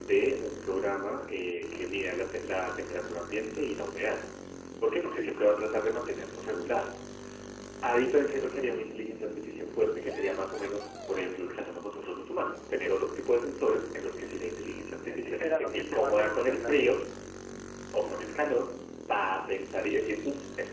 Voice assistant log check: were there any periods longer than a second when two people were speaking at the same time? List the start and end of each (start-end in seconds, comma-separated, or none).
15.1-16.8